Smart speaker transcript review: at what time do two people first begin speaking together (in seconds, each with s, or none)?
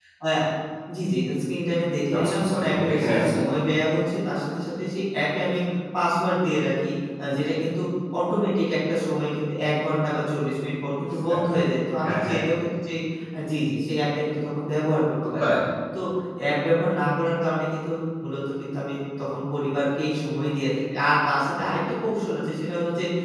2.2 s